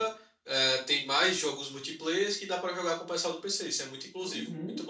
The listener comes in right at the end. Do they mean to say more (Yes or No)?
Yes